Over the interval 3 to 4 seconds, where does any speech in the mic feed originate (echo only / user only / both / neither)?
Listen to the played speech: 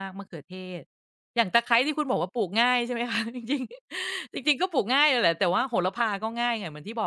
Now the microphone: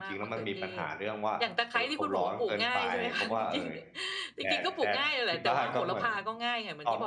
both